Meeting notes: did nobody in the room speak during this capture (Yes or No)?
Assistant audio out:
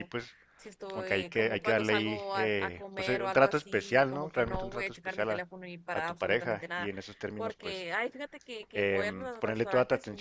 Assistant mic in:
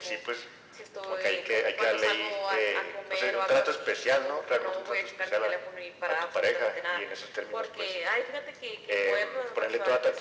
Yes